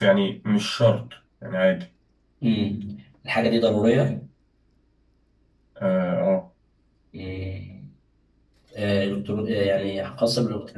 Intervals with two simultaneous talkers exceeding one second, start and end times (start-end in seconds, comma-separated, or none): none